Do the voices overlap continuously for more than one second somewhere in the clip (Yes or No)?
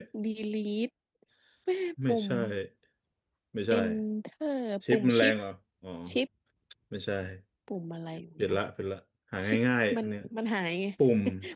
No